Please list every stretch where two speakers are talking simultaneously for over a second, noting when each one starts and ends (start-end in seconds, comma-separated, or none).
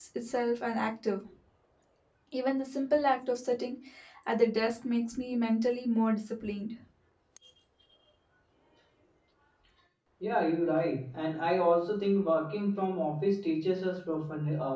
none